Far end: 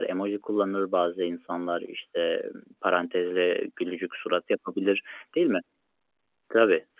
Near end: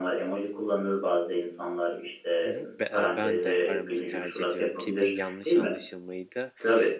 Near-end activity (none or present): present